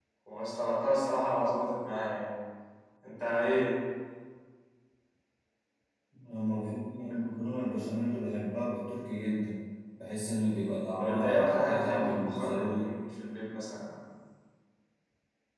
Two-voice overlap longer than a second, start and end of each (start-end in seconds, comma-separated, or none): 11.0-12.9